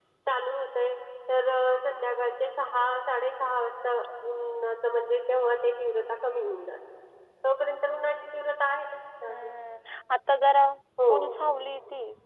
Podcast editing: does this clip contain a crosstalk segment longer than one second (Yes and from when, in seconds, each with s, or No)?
No